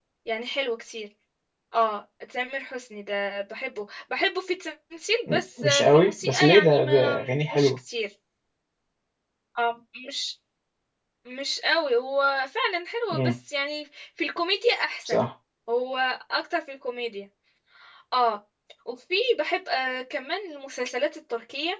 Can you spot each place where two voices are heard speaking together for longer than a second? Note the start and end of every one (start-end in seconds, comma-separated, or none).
5.3-7.7